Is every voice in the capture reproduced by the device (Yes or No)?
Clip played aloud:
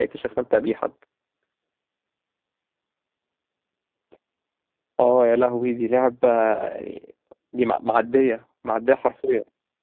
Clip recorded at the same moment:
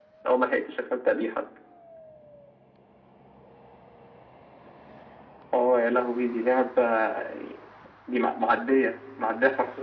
Yes